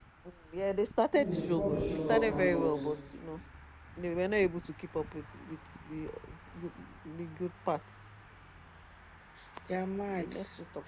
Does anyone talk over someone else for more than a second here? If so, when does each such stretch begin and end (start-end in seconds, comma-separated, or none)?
1.1-2.8